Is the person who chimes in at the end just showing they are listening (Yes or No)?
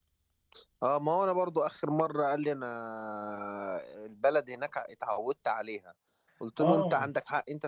Yes